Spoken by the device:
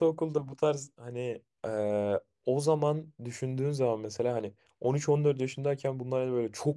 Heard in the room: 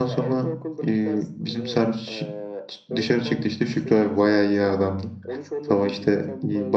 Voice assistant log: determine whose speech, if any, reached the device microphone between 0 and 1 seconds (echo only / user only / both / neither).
both